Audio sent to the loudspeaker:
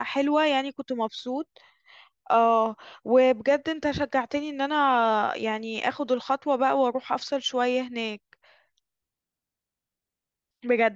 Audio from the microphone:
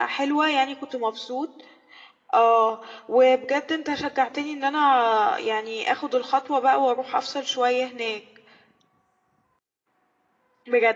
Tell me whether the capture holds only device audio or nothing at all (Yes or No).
Yes